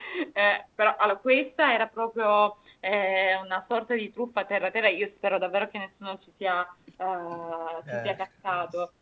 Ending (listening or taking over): listening